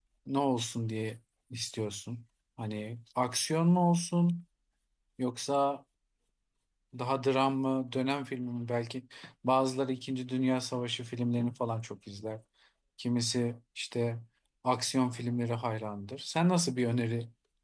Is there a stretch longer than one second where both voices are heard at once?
No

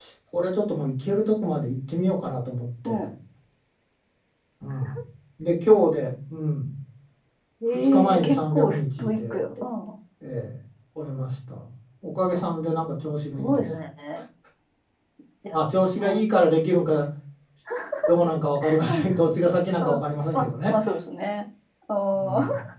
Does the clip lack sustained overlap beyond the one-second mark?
No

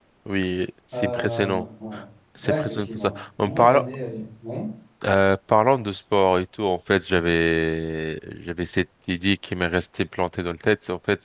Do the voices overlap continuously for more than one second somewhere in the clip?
Yes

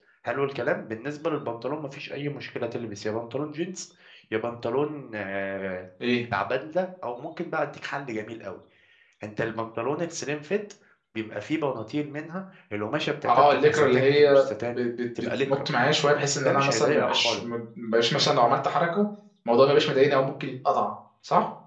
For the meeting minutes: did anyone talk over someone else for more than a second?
Yes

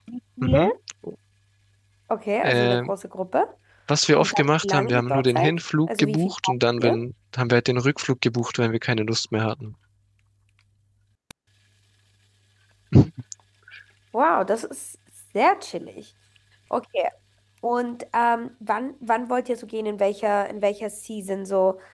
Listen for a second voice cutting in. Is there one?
Yes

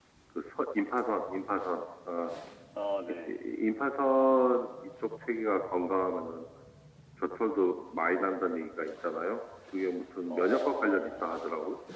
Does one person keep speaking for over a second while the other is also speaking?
Yes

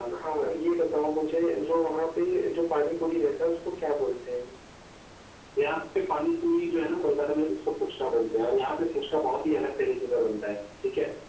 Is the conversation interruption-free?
Yes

